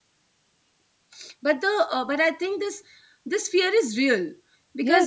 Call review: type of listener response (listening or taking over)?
taking over